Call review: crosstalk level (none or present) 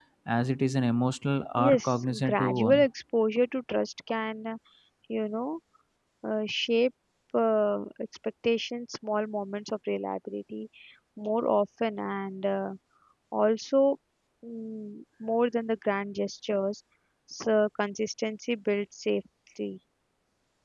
present